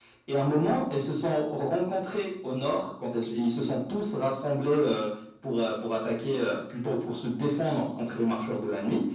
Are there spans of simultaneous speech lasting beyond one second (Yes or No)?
No